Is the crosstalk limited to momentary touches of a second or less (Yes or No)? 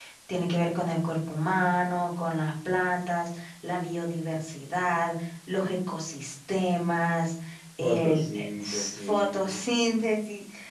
No